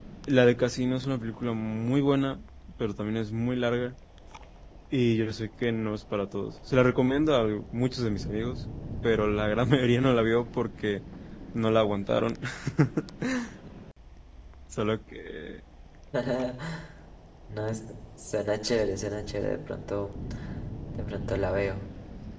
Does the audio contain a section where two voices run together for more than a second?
No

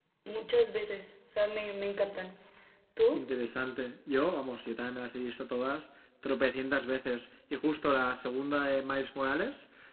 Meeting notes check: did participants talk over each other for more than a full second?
No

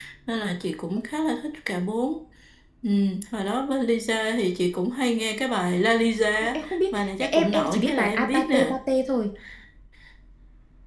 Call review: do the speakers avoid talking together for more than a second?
No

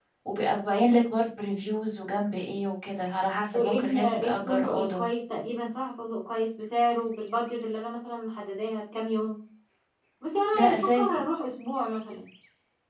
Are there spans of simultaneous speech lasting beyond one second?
Yes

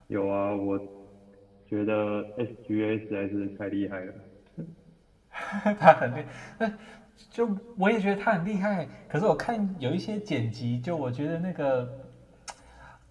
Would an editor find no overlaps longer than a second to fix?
Yes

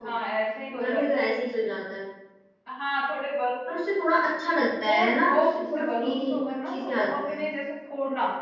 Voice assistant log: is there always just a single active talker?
No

